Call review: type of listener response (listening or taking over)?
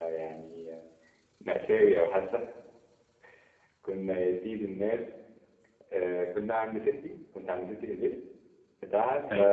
listening